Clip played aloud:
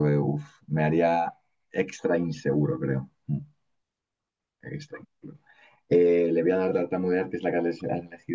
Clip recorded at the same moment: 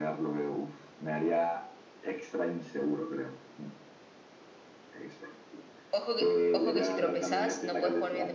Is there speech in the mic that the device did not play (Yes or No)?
Yes